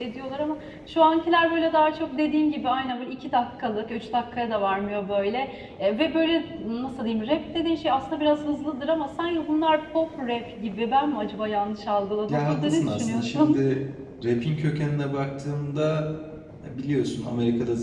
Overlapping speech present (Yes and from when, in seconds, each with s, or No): Yes, from 12.3 s